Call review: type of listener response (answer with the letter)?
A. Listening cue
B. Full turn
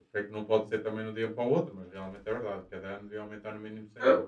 B